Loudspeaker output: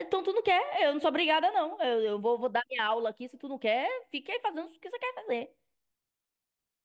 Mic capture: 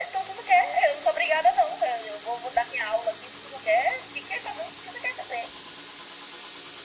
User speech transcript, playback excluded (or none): none